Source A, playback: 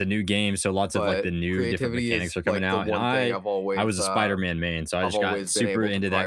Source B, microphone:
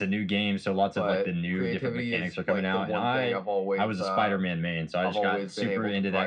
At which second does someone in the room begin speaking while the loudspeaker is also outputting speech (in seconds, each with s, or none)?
none